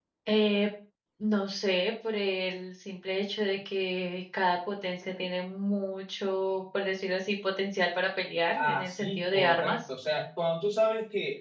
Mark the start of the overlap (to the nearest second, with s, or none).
9 s